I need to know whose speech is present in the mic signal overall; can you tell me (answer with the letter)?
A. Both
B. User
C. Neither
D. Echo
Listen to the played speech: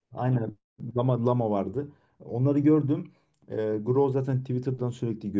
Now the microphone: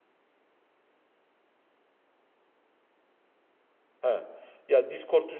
B